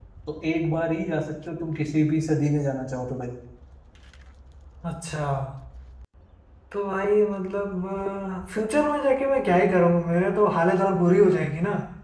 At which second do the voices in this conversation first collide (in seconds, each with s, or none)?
none